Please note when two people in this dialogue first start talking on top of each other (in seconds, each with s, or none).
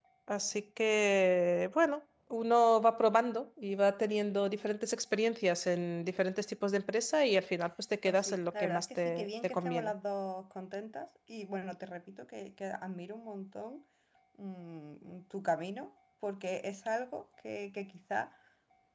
8.0 s